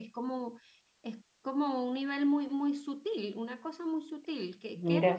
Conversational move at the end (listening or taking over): listening